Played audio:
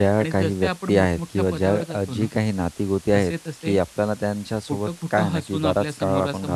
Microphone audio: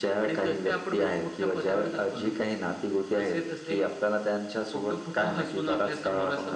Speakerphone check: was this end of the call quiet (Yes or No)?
Yes